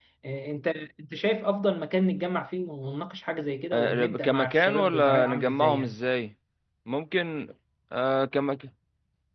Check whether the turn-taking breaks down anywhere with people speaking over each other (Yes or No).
Yes